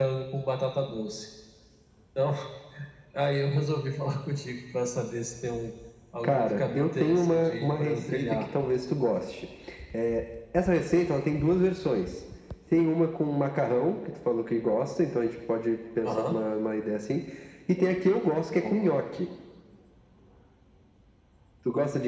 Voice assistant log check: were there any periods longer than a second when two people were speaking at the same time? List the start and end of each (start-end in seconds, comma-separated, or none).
6.2-8.5